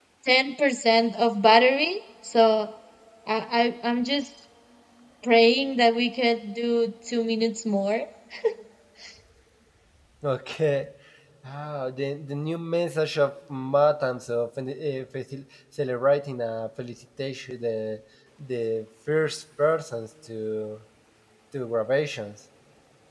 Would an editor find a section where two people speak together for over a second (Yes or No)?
No